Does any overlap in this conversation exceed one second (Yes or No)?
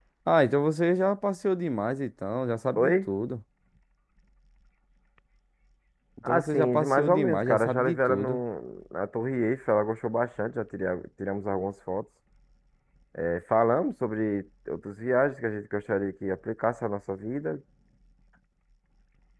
Yes